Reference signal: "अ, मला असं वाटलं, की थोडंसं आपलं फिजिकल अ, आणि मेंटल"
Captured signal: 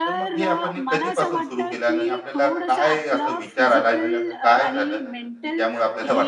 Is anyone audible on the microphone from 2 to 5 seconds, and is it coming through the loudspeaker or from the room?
both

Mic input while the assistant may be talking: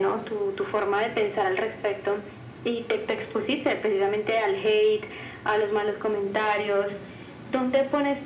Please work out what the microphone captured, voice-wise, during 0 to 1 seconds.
echo only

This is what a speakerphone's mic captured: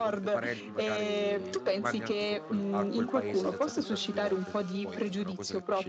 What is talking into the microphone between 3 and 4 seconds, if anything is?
both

